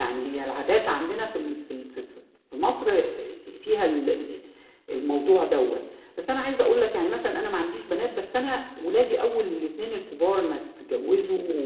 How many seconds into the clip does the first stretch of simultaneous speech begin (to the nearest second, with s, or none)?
none